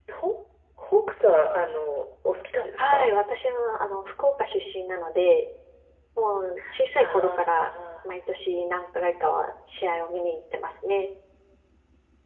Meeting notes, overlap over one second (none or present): none